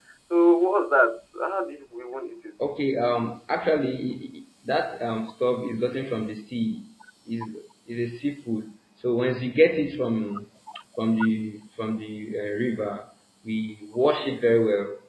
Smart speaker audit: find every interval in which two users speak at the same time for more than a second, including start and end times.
none

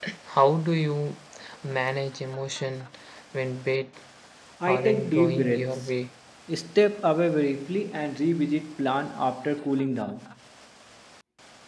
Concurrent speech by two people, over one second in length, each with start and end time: 4.7-5.9

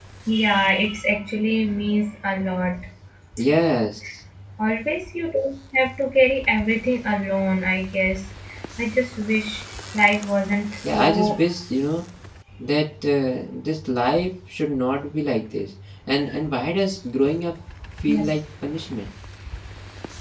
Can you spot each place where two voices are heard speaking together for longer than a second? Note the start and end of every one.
none

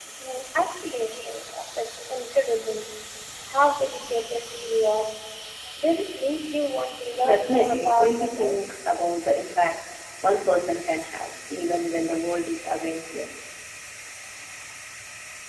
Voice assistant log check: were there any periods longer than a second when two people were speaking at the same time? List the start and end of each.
7.2-8.6

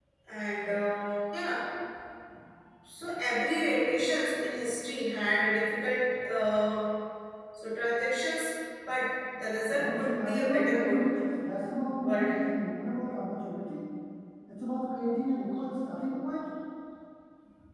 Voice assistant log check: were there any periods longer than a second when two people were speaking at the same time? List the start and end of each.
9.7-11.1

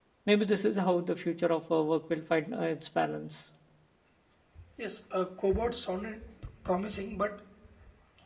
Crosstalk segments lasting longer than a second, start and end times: none

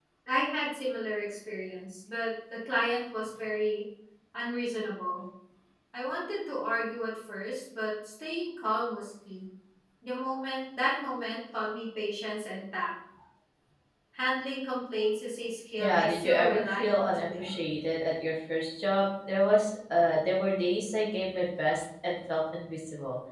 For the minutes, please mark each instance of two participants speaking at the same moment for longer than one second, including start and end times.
15.8-17.6

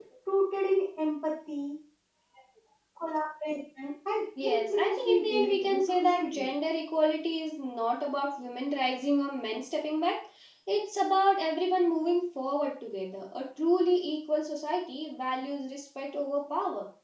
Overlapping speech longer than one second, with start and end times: 4.4-6.5

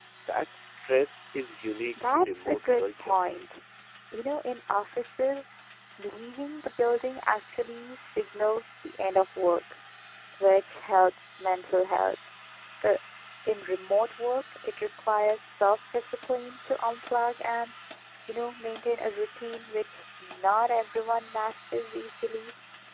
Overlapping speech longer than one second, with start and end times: 1.9-3.1

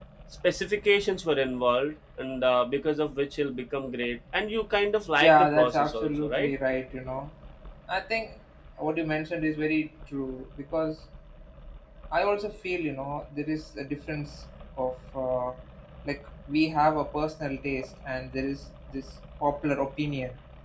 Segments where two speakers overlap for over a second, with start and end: 5.2-6.5

